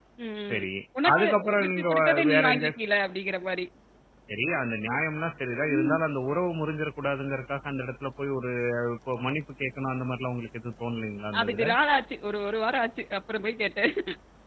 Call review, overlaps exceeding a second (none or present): present